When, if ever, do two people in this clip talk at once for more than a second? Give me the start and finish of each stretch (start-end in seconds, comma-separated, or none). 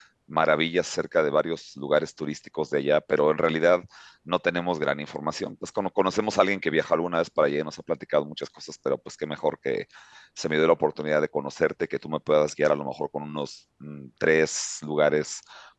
none